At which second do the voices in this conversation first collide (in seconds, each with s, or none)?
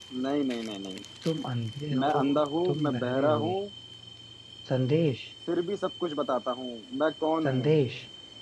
2.0 s